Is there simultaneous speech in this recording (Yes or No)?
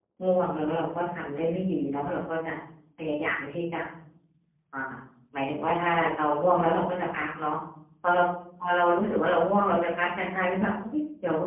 No